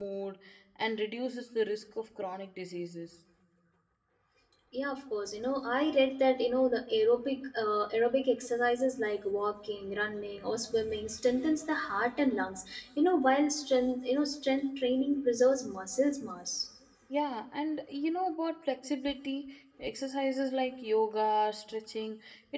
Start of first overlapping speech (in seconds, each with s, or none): none